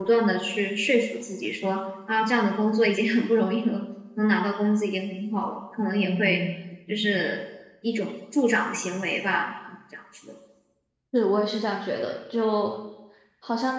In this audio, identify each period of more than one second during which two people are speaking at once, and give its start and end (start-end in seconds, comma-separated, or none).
none